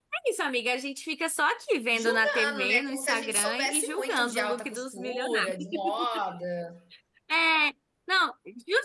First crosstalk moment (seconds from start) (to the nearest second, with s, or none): 2 s